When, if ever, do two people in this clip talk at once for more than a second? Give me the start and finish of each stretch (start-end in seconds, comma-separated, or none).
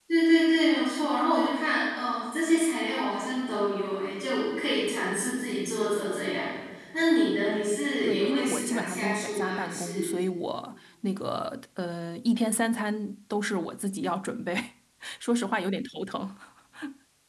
8.0-10.1